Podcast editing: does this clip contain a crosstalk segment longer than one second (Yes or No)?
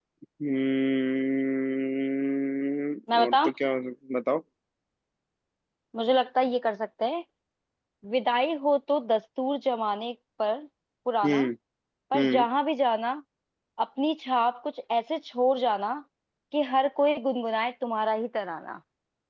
No